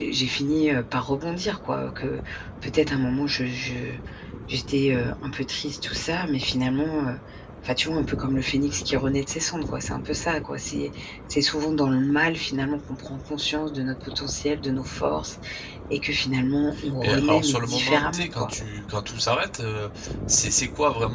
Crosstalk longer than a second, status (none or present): present